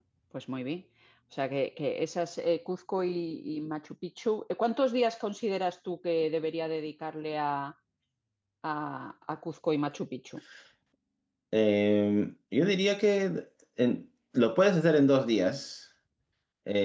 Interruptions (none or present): none